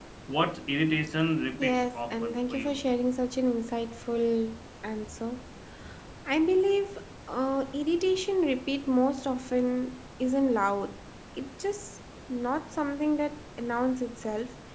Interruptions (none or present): present